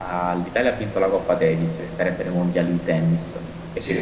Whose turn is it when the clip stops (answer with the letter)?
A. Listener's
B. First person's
B